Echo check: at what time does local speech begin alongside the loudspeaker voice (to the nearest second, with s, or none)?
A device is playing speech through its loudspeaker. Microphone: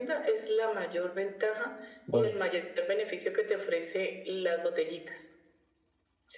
2 s